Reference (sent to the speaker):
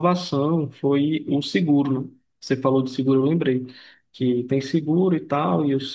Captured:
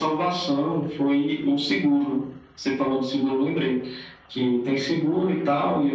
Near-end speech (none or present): none